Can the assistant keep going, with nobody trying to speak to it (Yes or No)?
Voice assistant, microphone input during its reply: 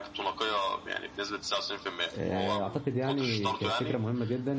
No